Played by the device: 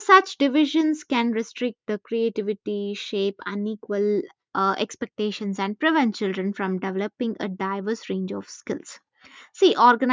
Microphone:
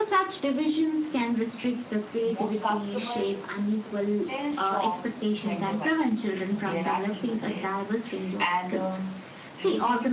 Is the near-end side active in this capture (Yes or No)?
Yes